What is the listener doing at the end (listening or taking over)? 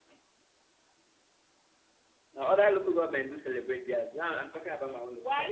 taking over